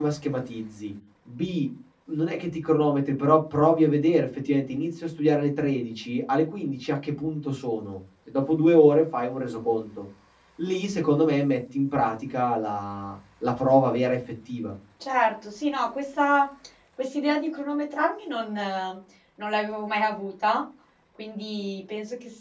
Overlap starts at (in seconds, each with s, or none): none